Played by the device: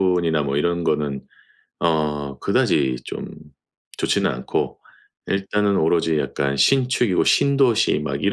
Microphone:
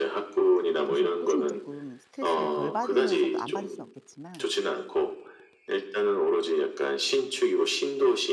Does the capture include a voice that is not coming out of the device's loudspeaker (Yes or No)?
Yes